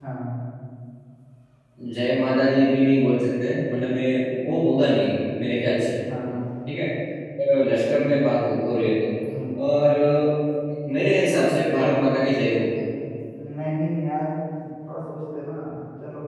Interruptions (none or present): none